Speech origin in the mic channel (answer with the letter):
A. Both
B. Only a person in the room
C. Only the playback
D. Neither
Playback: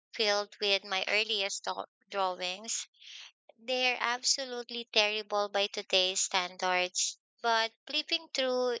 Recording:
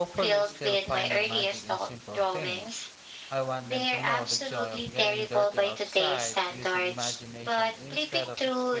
A